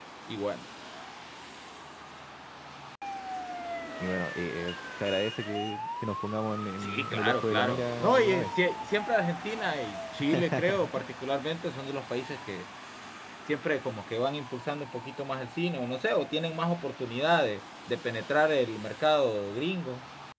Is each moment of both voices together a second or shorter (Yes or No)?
No